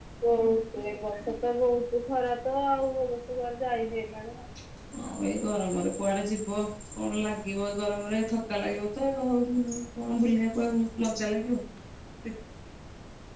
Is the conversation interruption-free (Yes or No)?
Yes